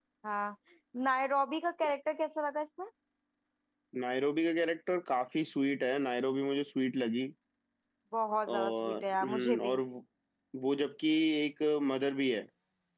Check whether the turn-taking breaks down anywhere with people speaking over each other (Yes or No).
Yes